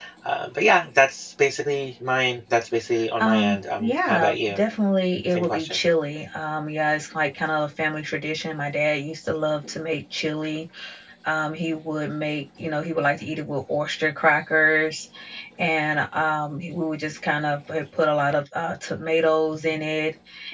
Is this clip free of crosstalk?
No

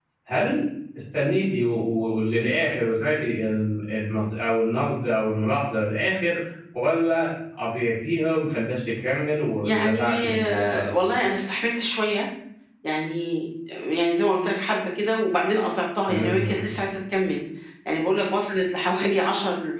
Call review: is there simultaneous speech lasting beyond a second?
Yes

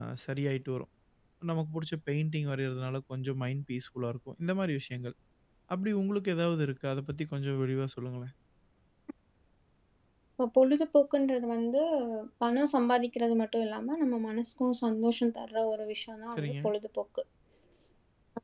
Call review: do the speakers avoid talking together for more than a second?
Yes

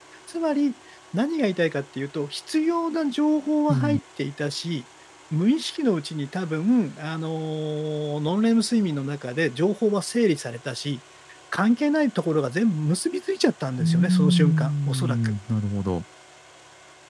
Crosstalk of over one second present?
Yes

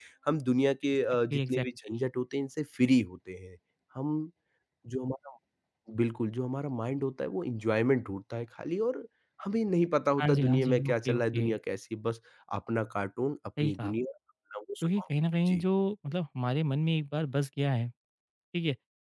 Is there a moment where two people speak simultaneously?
Yes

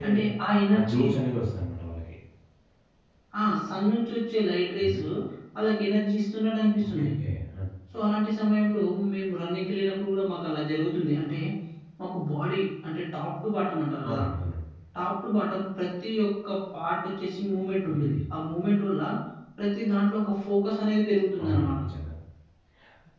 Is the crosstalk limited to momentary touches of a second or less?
Yes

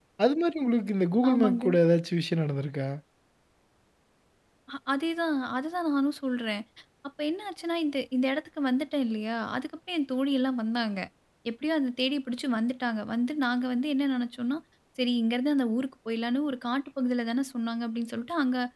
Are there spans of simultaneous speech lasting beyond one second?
No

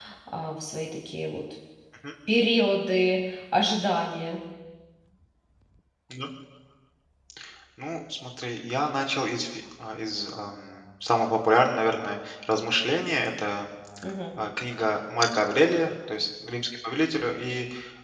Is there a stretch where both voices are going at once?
No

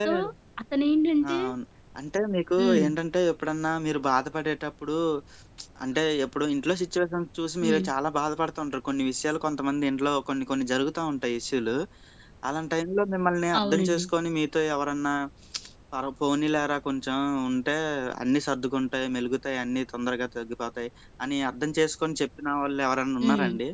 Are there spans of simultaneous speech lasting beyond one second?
No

